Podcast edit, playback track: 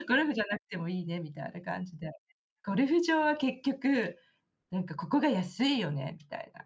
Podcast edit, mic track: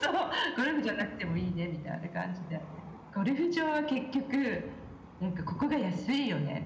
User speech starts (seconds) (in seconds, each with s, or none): none